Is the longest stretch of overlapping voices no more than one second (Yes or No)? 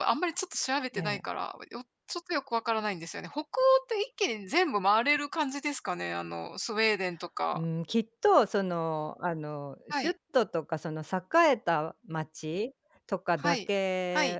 Yes